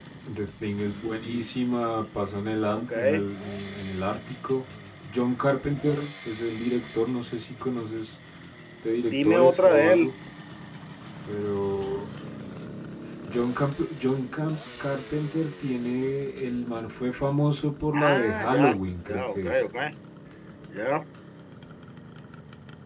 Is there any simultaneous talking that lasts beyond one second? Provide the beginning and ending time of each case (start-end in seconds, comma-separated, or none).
8.9-10.1, 17.9-19.5